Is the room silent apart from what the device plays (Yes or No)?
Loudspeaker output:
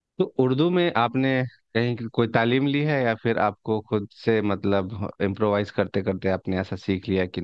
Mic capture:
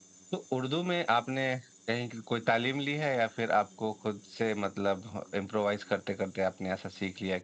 Yes